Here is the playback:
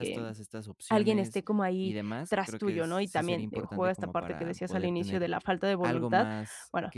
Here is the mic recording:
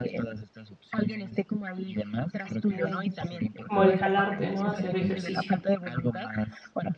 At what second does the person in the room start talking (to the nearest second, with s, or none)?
2 s